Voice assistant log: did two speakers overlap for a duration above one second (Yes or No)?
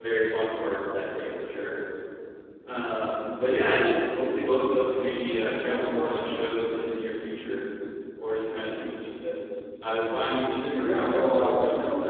Yes